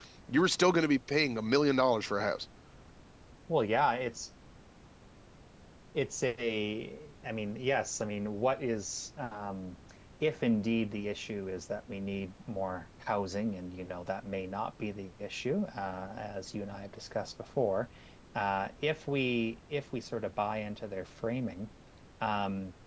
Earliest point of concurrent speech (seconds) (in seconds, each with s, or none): none